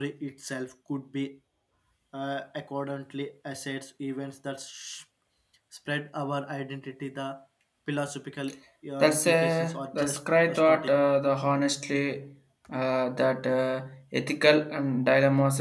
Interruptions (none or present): present